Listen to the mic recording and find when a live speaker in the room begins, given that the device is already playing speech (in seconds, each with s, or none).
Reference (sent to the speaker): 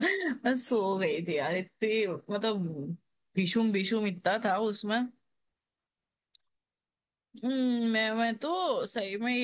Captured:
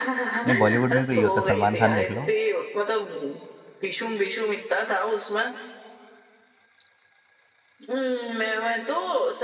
0.5 s